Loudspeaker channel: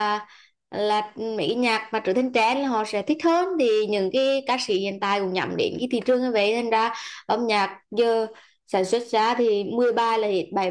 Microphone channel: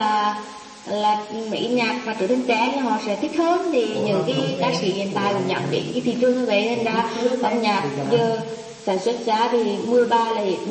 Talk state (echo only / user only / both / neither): both